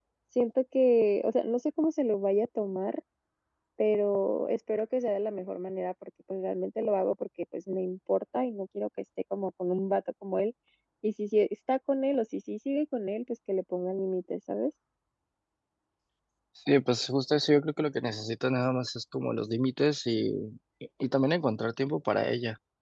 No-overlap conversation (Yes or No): Yes